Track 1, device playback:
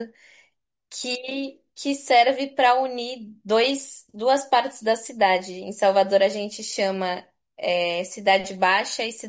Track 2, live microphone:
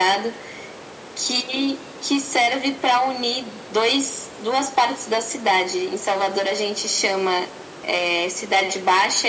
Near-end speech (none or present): none